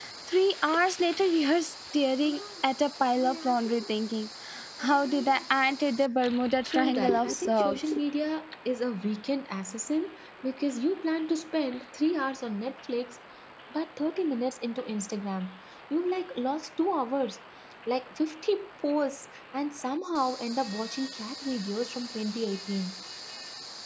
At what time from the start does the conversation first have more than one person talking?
6 s

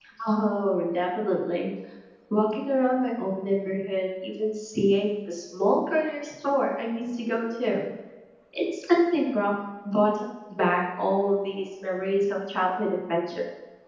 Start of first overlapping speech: none

